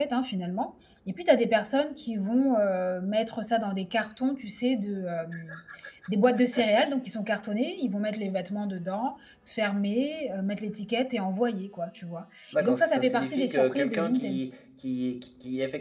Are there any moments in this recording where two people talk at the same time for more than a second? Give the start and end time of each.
12.6-14.4

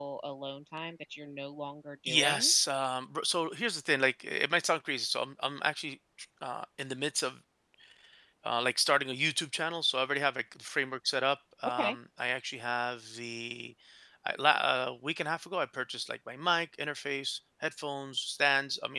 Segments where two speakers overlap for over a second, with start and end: none

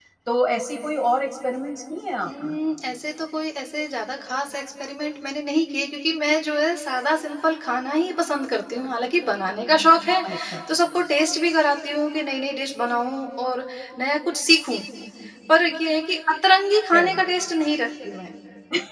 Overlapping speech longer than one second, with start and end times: none

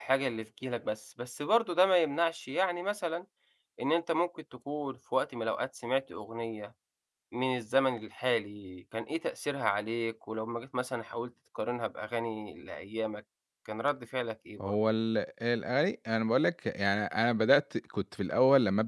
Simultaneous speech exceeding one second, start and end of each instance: none

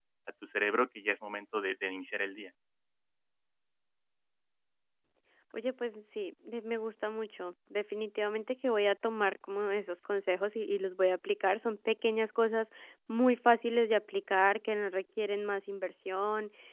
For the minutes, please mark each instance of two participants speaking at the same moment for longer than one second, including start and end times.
none

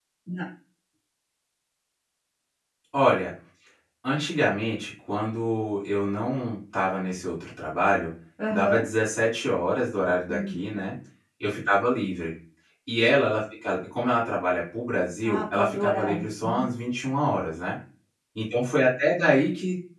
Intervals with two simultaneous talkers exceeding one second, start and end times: 15.2-16.7

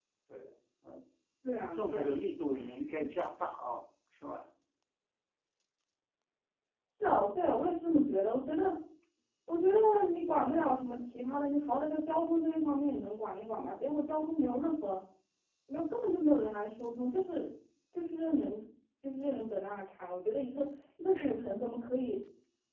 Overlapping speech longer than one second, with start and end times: none

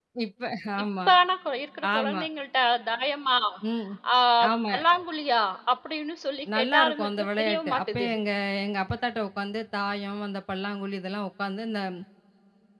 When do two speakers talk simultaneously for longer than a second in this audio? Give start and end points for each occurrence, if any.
6.5-8.1

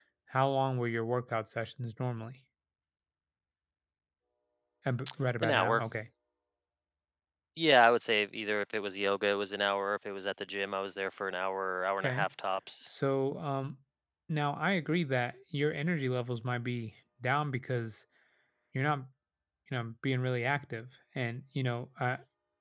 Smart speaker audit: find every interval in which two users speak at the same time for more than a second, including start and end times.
none

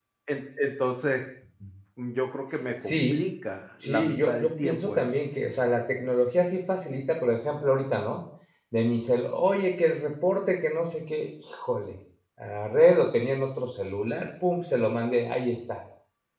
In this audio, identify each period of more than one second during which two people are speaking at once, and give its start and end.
3.8-5.1

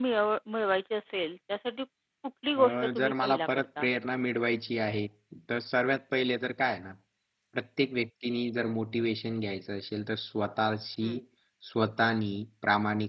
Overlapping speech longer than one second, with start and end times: 2.6-3.9

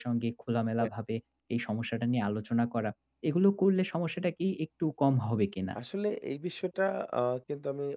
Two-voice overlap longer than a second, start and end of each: none

